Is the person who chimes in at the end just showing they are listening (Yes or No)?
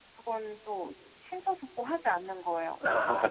No